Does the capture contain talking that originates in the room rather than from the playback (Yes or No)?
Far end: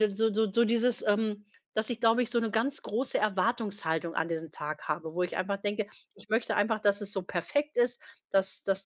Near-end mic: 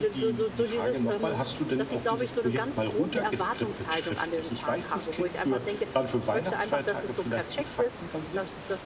Yes